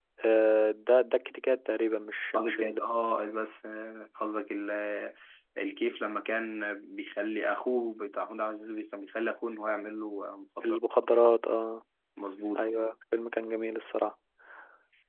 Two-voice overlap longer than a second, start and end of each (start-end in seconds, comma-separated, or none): none